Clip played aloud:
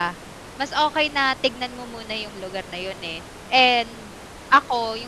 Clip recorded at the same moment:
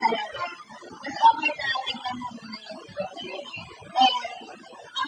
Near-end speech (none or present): none